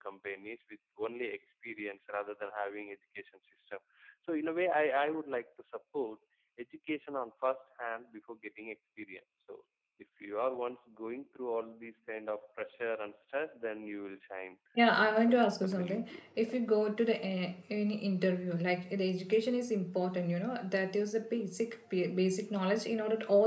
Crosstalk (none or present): present